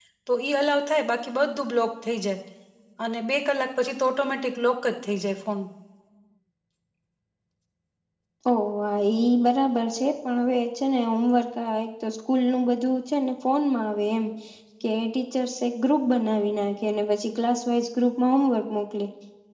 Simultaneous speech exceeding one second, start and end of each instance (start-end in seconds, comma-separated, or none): none